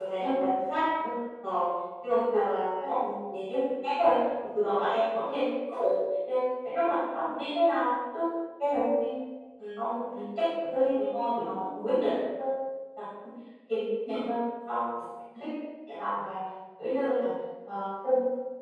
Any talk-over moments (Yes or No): No